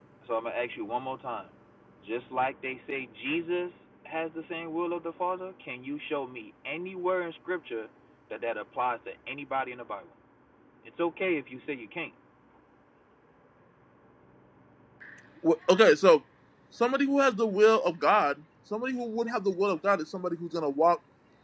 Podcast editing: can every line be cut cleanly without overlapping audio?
Yes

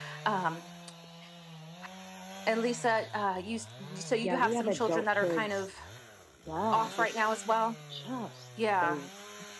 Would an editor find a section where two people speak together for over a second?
Yes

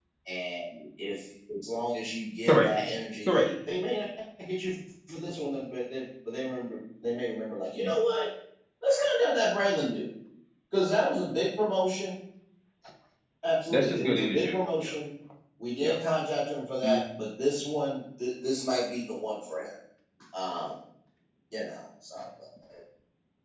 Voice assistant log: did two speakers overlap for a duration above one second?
Yes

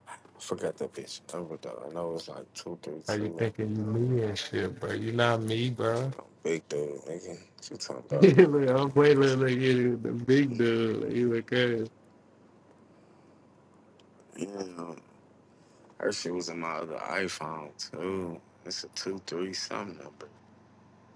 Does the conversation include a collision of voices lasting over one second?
No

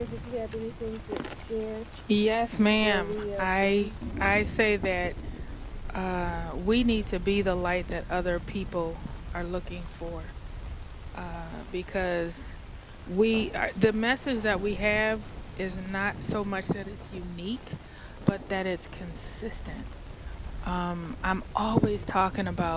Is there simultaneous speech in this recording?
Yes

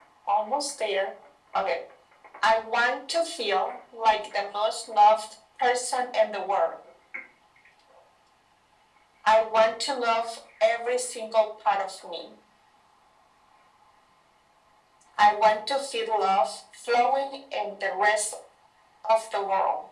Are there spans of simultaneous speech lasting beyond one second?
No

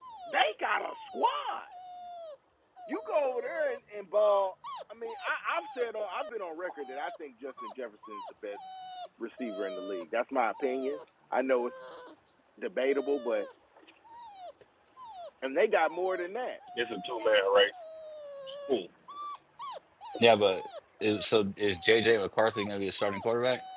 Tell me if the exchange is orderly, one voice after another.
Yes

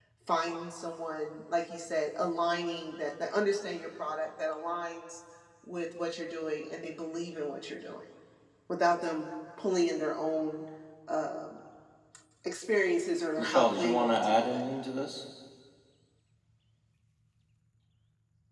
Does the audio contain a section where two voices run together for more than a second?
Yes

